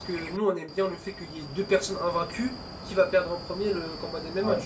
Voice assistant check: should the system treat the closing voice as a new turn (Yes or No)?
No